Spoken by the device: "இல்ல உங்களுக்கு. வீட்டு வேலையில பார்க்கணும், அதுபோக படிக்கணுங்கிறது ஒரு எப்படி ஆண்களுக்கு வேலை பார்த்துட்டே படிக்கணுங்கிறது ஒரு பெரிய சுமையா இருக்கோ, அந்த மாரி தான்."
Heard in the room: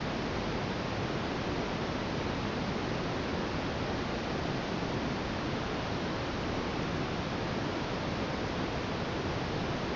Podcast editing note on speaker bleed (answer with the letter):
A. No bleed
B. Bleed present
A